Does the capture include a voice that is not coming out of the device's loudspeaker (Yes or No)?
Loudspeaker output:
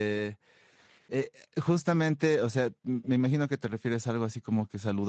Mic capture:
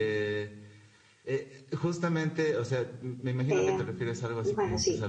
Yes